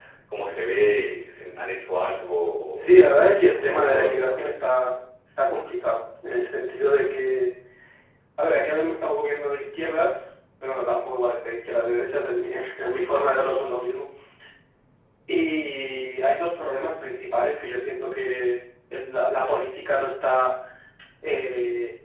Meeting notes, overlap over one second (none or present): present